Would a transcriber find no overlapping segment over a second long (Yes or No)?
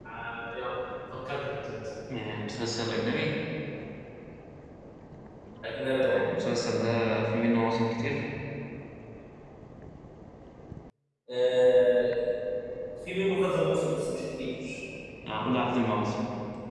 Yes